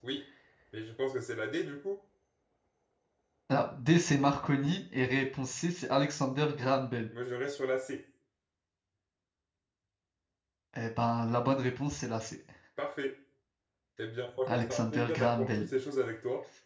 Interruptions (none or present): present